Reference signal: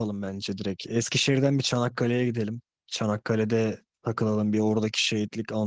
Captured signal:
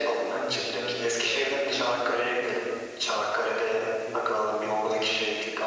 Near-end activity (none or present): present